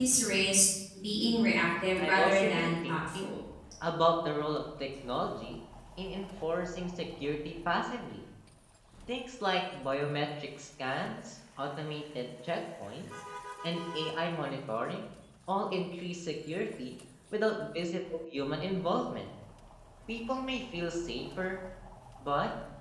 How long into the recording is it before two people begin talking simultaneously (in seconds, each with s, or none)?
2.0 s